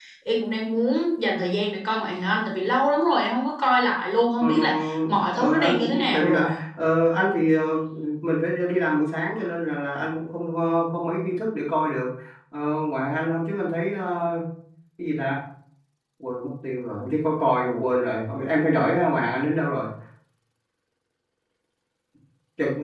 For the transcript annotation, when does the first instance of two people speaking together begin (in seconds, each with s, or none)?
4.4 s